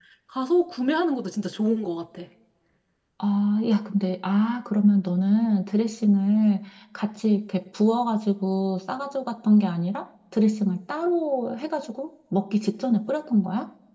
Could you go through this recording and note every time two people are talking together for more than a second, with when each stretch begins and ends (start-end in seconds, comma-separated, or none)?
none